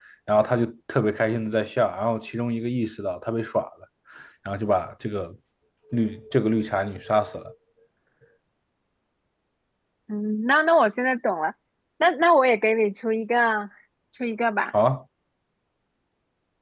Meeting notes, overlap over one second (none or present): none